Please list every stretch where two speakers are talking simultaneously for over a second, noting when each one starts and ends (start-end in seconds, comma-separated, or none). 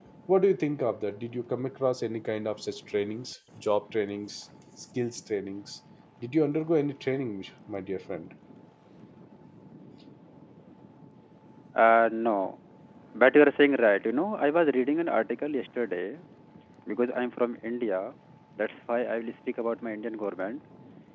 none